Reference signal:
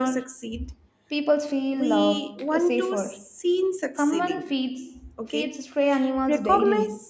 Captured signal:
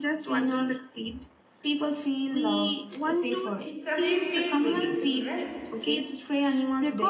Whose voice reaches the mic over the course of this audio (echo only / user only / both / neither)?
both